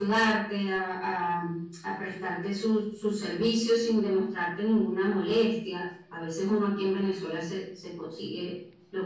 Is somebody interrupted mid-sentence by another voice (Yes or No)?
No